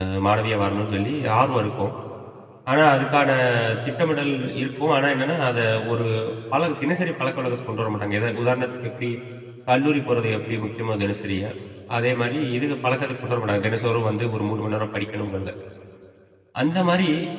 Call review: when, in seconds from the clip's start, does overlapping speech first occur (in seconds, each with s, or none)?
none